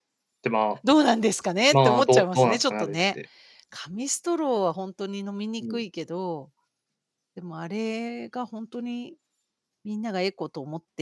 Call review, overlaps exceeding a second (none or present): present